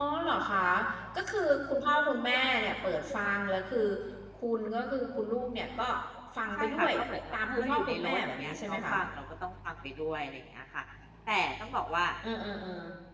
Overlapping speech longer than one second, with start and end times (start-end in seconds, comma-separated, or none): 7.3-8.9